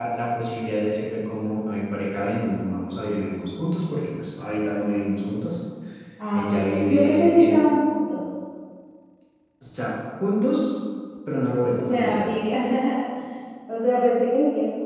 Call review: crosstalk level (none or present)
present